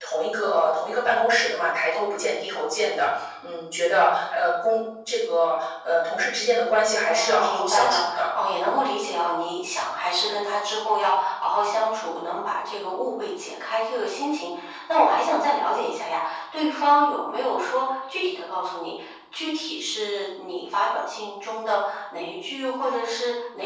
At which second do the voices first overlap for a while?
7.0 s

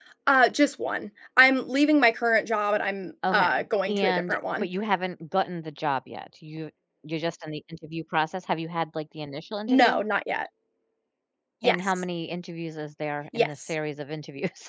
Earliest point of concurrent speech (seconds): 3.3 s

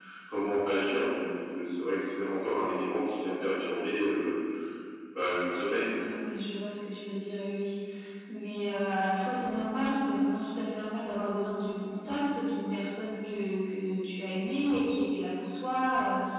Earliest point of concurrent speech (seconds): none

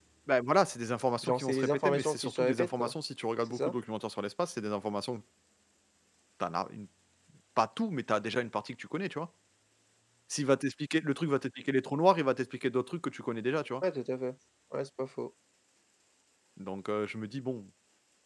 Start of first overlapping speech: 1.2 s

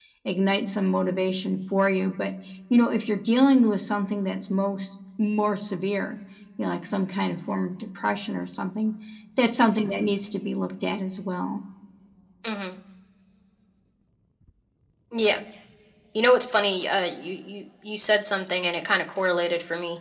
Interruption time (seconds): none

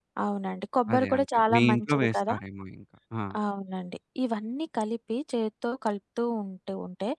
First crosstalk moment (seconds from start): 0.9 s

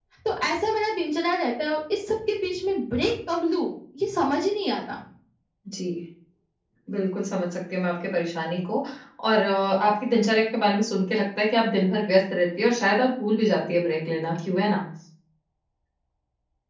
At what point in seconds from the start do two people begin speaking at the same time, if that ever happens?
none

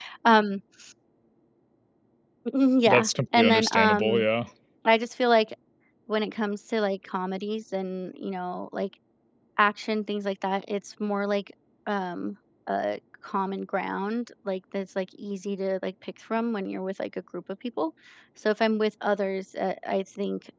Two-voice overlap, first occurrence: 2.9 s

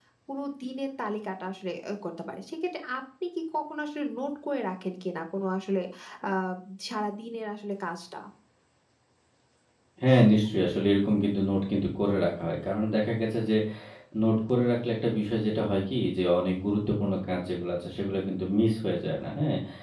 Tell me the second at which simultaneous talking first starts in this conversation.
none

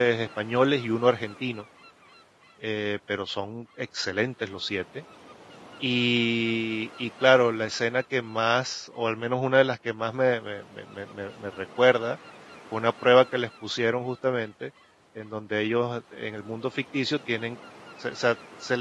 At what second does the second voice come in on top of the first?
none

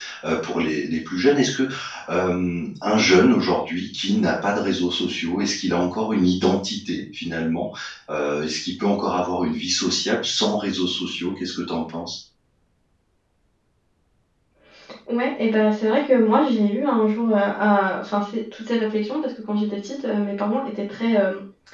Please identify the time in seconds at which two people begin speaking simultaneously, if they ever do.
none

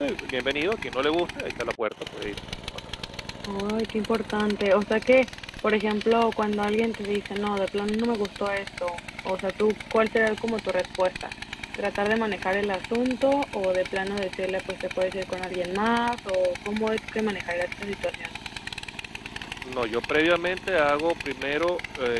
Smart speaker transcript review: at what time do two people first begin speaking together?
none

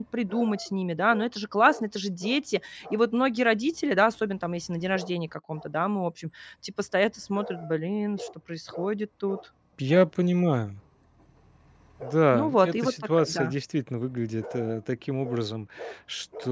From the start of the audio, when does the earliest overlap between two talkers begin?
12.3 s

